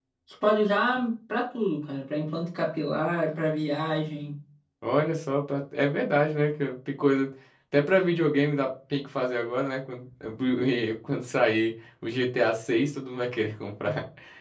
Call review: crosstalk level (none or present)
none